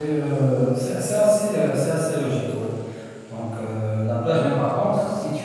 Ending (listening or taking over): listening